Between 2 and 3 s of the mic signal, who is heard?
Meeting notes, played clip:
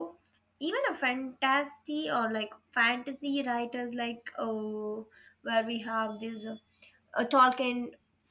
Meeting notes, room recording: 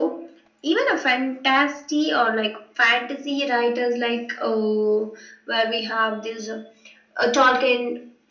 echo only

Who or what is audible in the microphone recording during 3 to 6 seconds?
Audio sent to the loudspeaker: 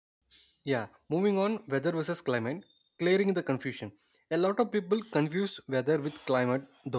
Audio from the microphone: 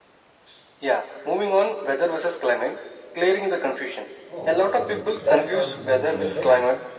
both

